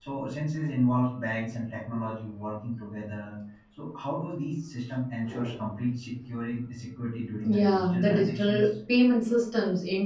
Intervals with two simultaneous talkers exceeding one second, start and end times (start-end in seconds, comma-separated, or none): 7.4-8.7